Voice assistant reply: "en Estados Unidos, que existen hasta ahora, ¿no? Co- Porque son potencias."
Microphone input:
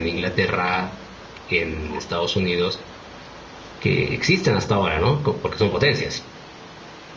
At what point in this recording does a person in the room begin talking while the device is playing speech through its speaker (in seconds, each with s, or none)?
none